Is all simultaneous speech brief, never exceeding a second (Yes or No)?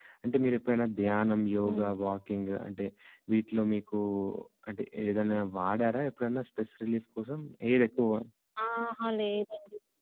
Yes